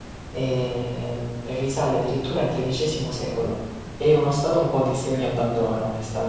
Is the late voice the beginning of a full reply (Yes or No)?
No